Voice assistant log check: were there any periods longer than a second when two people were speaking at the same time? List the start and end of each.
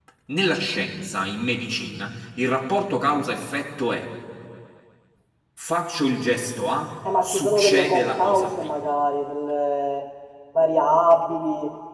7.2-8.7

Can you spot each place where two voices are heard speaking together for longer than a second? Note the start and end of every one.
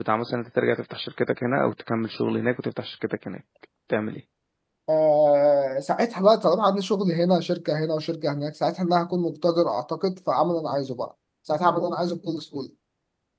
none

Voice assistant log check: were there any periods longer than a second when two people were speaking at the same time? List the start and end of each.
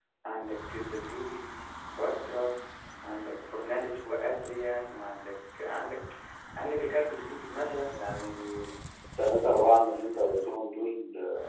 none

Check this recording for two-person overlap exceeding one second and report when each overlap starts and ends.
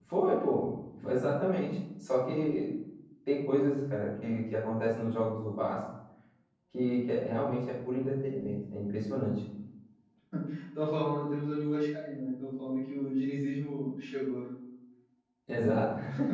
none

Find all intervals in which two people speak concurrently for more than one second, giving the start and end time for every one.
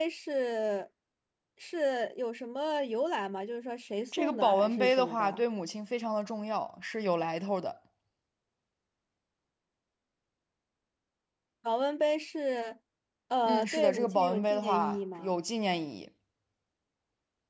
4.2-5.4, 13.4-15.3

